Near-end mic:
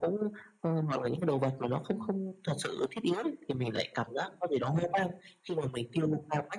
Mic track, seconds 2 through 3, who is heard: both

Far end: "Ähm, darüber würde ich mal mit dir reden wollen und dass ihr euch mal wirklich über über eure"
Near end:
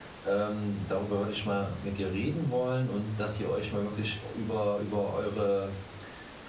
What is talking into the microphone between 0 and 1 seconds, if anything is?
echo only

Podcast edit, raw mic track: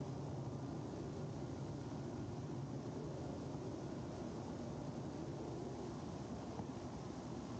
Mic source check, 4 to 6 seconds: neither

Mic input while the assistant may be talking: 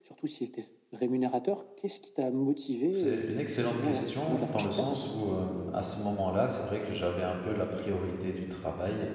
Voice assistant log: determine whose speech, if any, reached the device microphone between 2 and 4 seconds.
both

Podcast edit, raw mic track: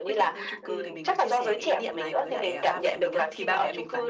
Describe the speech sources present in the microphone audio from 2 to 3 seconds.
both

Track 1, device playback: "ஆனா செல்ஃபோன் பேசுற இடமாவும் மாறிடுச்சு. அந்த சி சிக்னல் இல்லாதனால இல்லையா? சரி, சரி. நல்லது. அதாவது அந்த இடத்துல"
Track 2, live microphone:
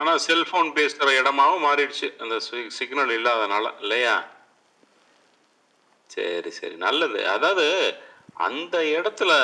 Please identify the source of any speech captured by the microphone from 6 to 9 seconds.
echo only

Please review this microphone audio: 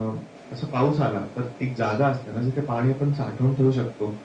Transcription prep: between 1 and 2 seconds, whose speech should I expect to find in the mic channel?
echo only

